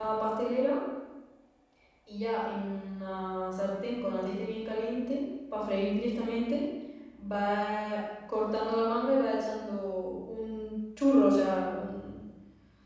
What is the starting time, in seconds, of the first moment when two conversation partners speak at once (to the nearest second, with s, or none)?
none